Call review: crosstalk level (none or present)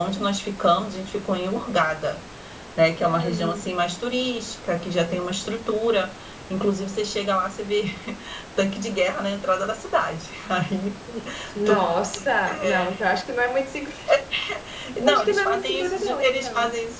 present